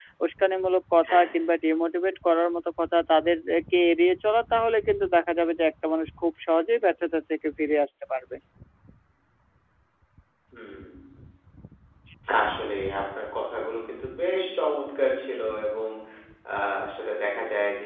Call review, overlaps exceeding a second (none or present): none